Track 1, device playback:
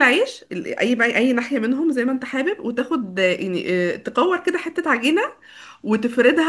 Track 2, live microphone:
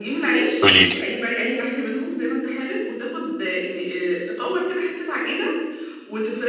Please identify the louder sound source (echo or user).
user